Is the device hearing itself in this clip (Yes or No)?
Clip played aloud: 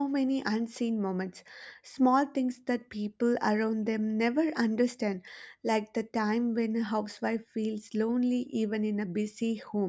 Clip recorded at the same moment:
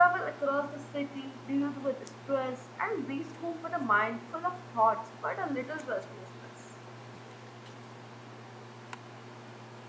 No